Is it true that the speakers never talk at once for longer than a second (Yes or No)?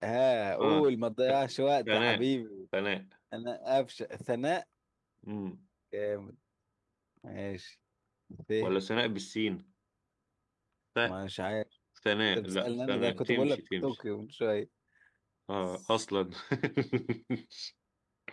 No